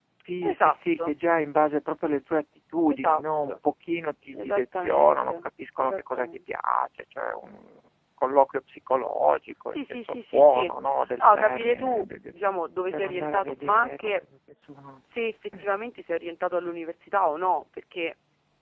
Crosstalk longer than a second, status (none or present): present